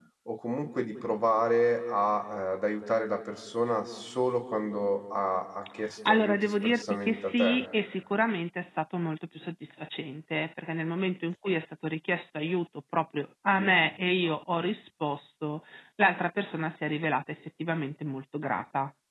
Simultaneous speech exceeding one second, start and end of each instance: 6.0-7.7

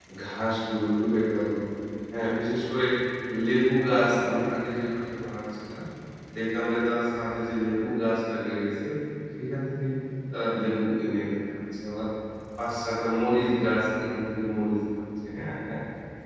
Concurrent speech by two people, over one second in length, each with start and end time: none

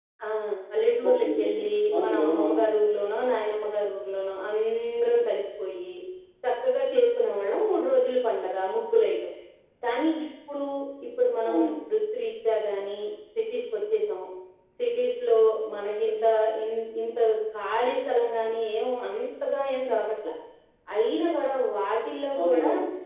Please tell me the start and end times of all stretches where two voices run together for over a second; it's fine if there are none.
1.1-2.6

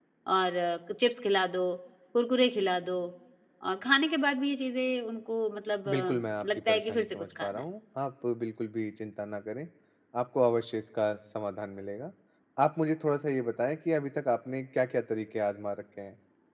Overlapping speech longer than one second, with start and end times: 5.9-7.6

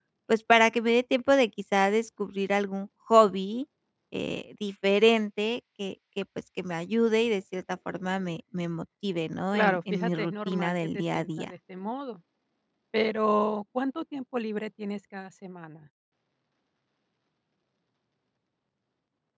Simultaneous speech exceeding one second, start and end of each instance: 9.5-11.5

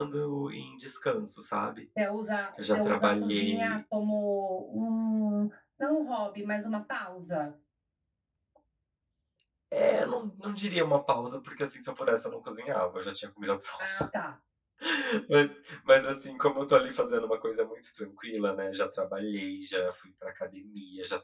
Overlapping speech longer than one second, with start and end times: 2.6-3.8

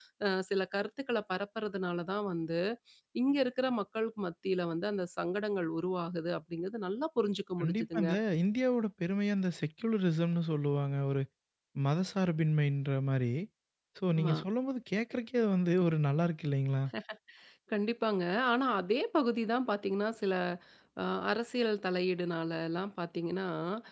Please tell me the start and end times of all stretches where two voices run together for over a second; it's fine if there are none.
none

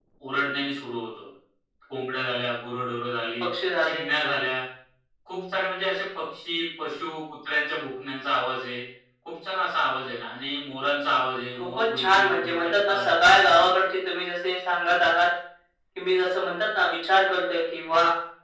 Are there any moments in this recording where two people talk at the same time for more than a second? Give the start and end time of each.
11.6-13.1

